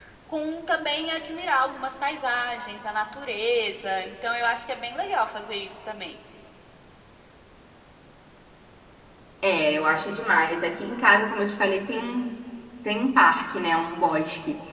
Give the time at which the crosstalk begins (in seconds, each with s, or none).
none